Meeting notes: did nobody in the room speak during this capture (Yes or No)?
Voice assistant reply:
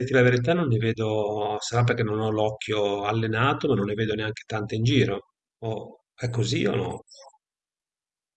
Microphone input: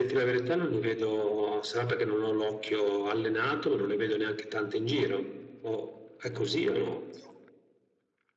Yes